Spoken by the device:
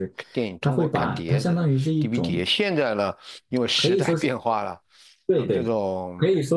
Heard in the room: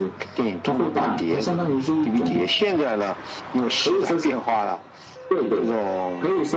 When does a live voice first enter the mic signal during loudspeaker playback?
none

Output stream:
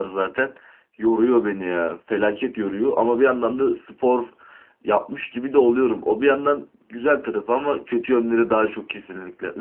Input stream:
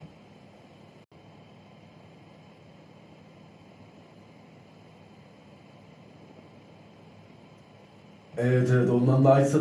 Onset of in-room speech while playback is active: 8 s

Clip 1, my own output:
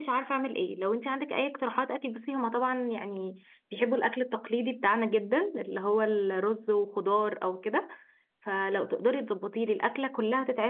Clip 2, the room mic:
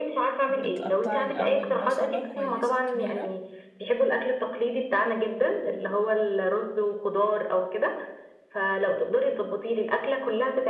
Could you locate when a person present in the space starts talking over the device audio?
0 s

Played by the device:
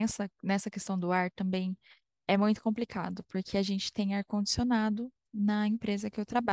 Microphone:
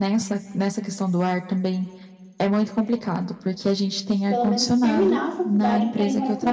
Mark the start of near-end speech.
4 s

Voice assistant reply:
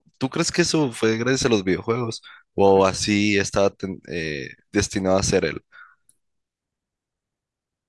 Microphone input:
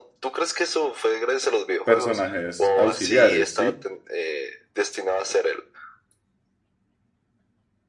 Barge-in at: 2 s

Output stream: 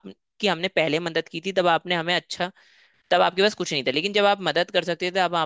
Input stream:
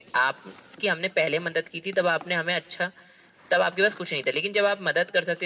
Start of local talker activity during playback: none

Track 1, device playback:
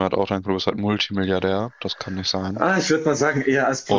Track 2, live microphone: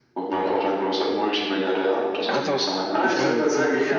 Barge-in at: 2 s

